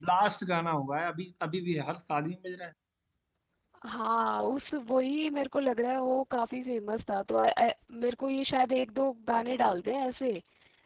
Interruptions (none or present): none